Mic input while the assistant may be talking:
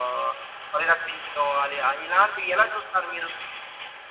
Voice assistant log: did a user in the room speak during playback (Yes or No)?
No